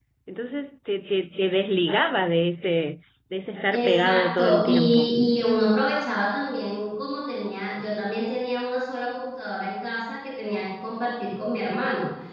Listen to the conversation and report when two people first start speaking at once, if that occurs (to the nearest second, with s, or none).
4 s